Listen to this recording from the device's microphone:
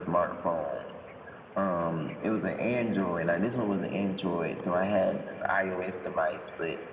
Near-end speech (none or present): none